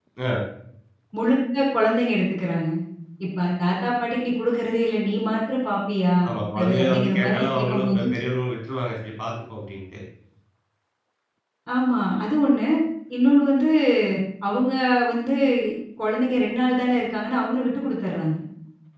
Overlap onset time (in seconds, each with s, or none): 6.6 s